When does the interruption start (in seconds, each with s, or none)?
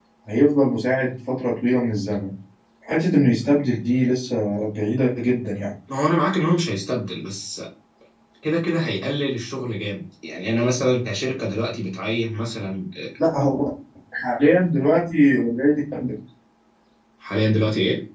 none